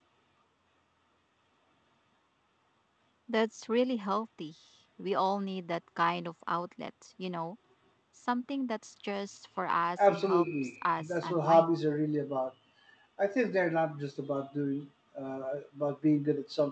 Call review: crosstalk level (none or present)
present